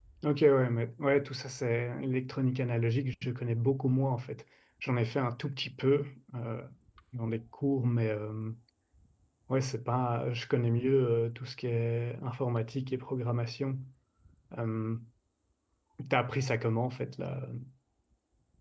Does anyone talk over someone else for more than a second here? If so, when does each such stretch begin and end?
none

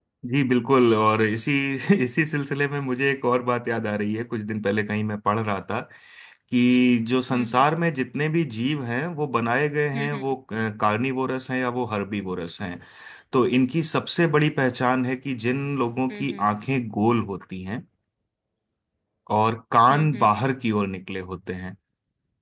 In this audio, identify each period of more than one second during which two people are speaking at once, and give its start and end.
none

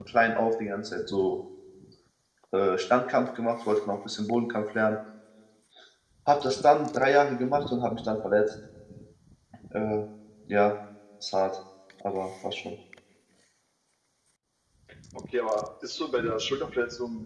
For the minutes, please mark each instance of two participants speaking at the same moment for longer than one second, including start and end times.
none

